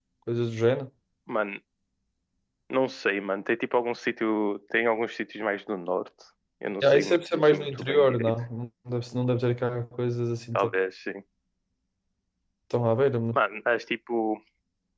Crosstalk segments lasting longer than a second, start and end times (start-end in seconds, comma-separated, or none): 6.8-8.3